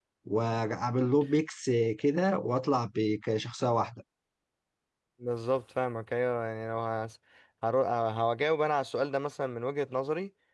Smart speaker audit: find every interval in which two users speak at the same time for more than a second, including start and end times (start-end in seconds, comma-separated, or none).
none